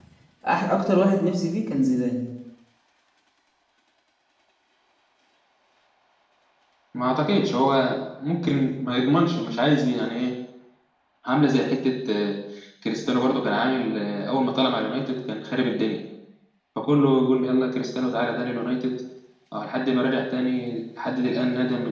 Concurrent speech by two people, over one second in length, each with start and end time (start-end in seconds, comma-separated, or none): none